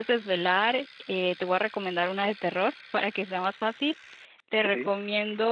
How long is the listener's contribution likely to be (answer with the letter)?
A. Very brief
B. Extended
A